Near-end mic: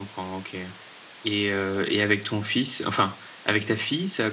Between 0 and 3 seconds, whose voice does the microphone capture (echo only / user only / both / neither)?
user only